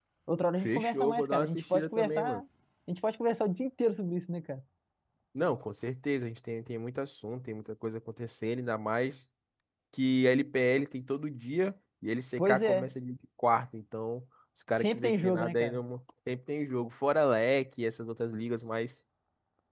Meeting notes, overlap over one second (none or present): present